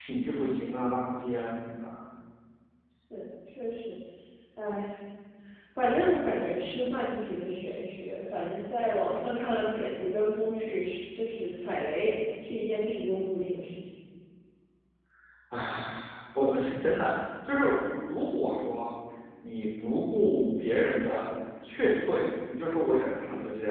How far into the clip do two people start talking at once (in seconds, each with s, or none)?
none